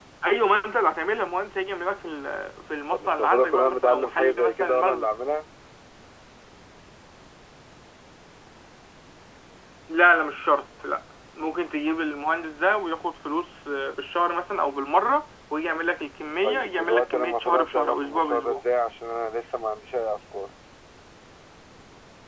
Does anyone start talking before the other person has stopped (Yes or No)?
Yes